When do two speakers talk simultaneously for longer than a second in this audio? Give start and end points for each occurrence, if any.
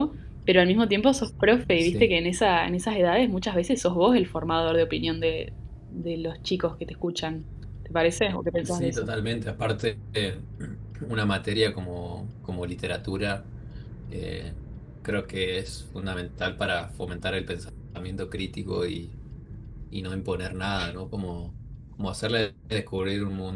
none

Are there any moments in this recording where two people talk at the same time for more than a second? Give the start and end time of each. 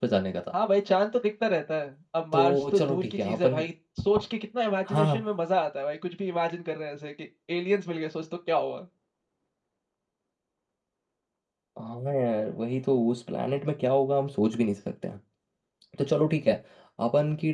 2.3-3.6

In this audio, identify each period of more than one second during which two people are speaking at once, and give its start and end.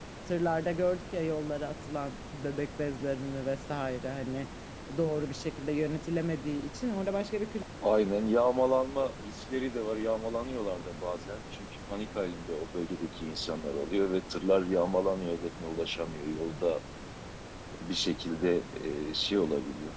none

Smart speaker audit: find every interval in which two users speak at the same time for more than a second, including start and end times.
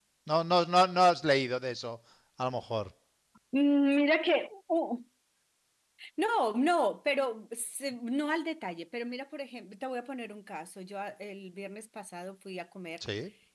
none

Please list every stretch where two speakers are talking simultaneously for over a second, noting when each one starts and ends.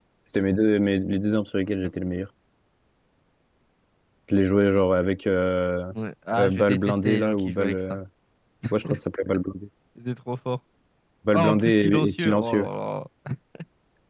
6.4-8.0, 11.3-12.7

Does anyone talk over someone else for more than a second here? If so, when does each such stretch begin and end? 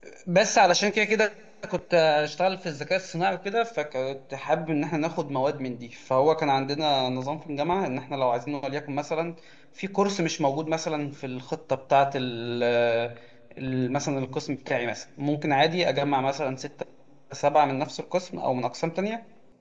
none

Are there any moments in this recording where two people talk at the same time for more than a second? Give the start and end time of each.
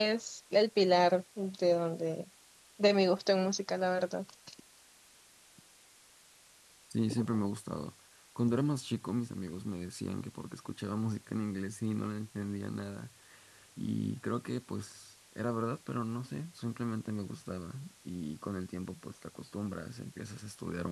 none

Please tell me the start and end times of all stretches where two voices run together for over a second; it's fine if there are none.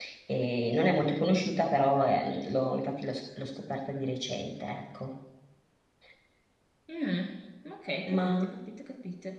none

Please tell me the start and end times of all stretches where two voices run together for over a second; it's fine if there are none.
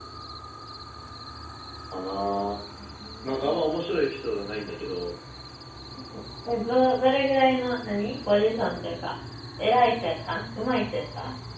none

